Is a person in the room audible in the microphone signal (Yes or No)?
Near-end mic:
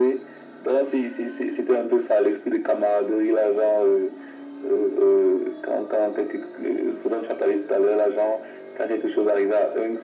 No